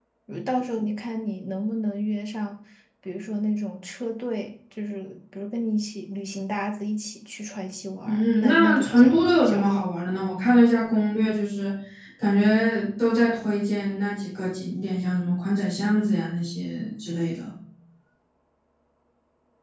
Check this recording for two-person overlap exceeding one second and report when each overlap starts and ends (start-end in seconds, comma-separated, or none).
8.1-9.8